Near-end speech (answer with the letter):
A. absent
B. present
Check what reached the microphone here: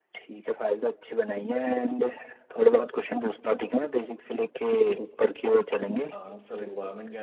B